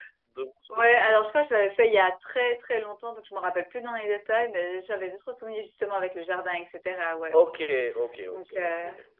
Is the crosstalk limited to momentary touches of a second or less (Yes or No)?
Yes